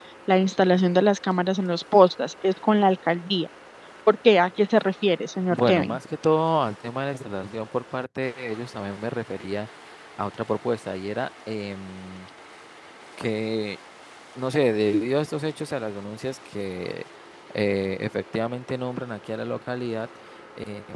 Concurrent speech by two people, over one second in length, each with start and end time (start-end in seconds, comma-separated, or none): none